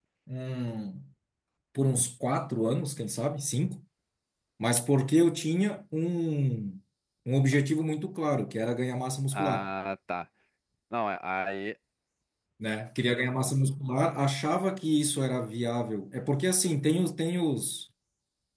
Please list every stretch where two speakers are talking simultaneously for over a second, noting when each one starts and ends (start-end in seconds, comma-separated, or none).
none